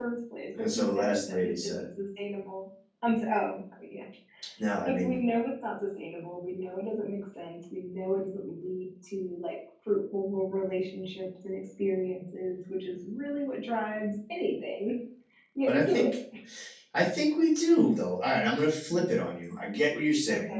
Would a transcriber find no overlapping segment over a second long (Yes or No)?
No